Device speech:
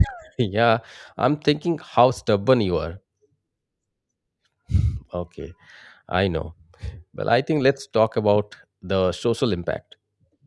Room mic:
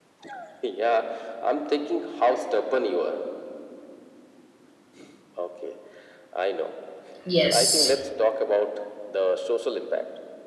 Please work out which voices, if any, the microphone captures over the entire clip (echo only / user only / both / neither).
both